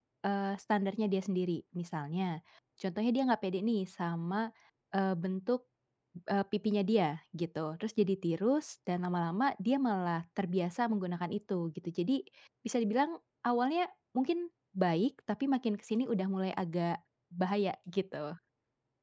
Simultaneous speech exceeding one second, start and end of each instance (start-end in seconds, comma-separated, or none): none